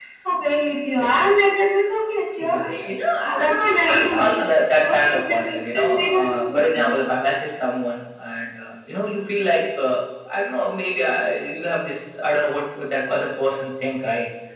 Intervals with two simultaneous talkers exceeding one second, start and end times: 2.4-4.3, 4.8-7.0

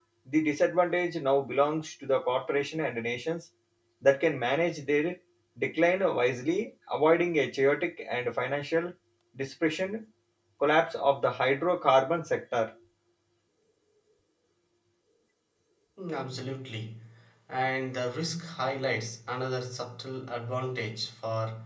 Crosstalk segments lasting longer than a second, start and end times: none

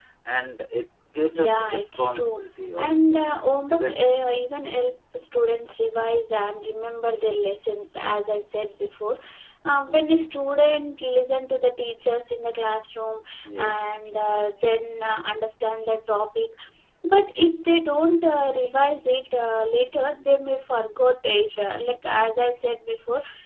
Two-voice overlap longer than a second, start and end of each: 1.3-2.9

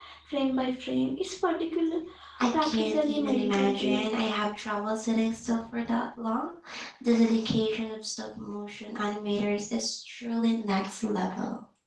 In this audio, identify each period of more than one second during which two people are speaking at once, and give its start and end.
2.6-4.0

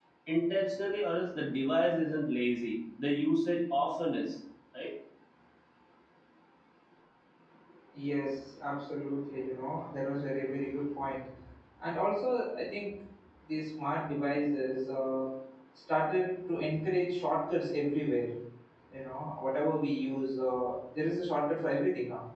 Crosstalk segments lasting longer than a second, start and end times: none

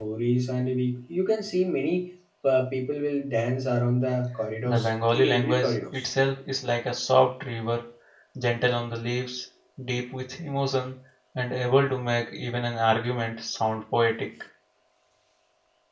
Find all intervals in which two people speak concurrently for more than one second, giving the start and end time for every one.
4.7-6.1

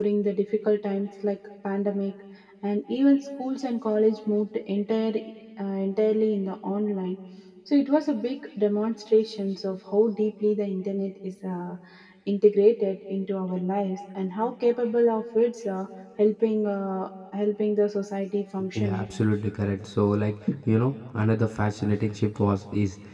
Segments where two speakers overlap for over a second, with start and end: none

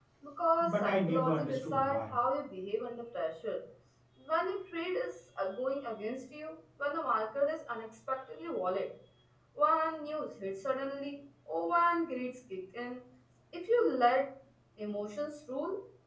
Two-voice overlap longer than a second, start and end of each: 0.6-2.1

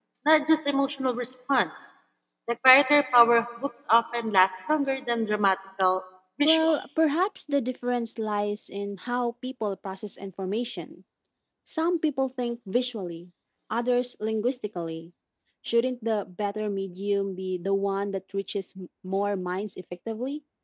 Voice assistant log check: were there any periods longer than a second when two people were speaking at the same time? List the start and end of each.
none

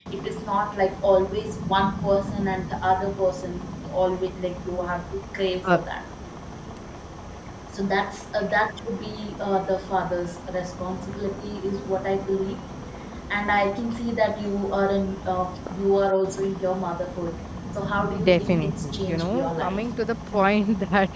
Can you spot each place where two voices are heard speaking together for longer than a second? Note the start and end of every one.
18.2-19.8

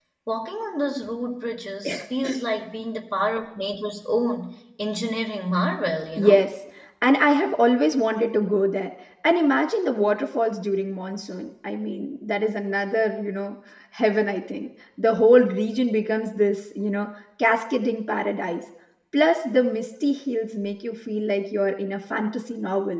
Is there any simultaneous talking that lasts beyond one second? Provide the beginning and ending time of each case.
none

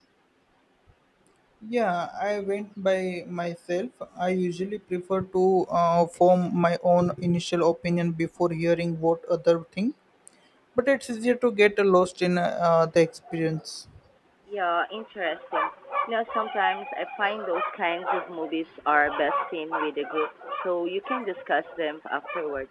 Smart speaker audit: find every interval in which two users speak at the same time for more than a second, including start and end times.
none

